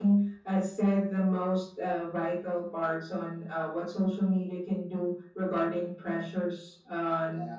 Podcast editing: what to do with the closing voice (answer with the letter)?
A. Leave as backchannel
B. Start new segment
A